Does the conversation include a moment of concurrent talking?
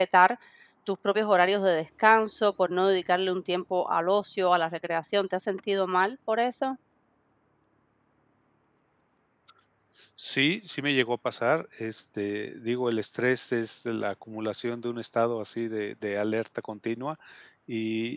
No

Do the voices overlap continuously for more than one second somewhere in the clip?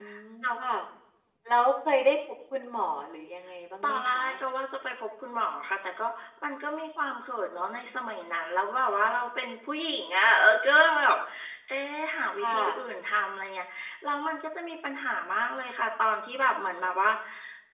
No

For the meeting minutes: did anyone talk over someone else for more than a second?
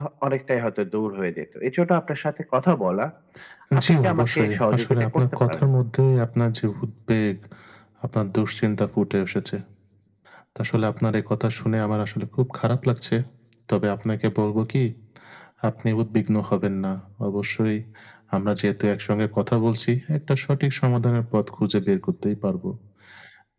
Yes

